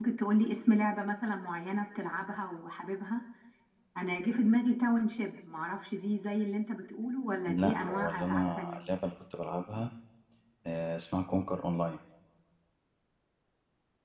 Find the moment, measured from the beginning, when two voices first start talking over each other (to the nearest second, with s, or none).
7 s